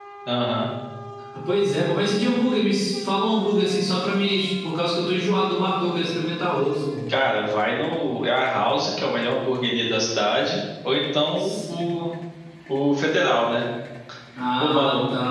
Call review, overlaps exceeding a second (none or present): none